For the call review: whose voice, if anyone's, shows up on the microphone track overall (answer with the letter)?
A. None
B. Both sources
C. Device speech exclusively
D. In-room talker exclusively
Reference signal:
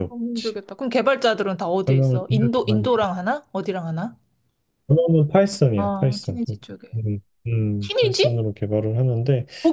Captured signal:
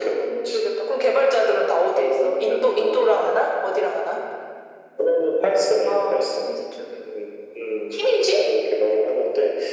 C